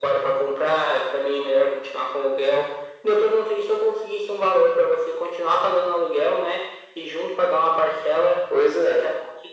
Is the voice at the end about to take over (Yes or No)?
No